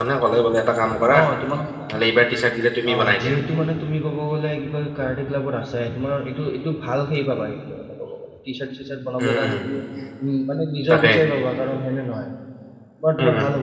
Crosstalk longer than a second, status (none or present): none